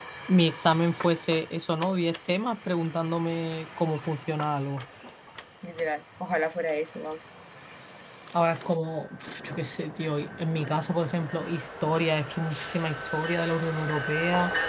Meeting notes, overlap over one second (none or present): none